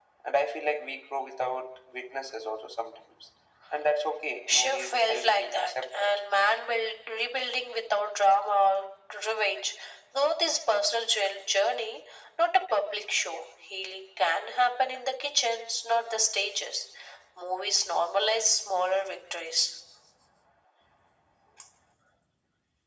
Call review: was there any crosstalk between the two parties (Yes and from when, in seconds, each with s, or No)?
Yes, from 4.5 s